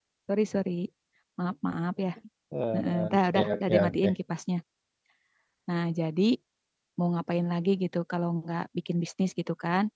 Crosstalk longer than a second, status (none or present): present